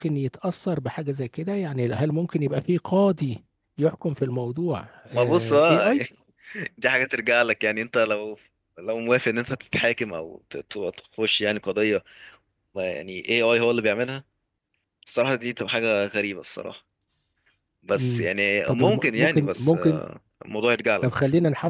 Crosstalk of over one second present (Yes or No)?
Yes